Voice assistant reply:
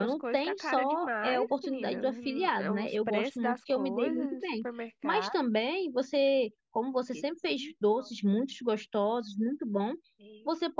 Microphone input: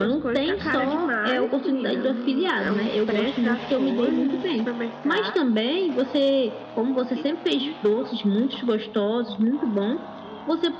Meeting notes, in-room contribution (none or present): none